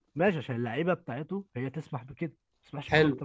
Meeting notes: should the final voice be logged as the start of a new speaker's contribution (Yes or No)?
Yes